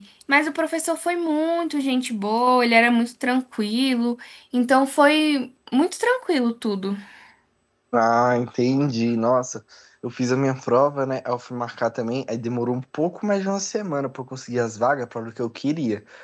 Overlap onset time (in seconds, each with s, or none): none